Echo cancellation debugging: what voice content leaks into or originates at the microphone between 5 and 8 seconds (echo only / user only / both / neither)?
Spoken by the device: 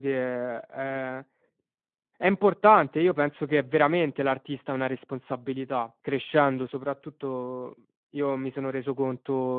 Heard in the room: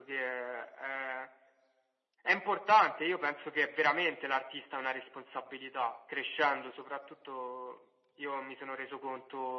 echo only